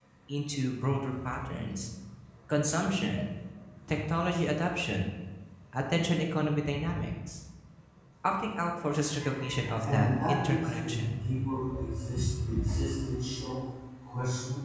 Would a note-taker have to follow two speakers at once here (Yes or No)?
Yes